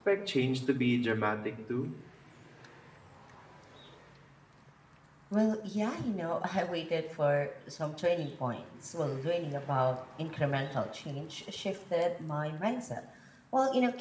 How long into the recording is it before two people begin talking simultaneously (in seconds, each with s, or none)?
none